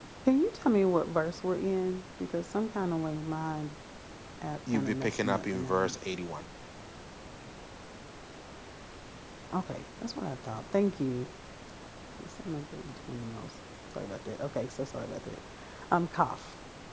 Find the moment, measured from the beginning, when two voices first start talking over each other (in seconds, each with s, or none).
4.7 s